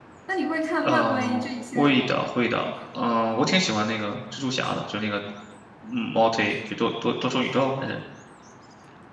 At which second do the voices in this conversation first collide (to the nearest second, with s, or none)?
1 s